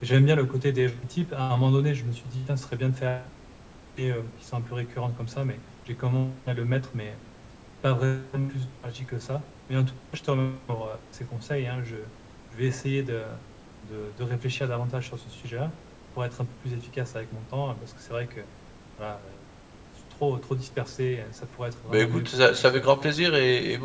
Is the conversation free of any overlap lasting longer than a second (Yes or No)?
No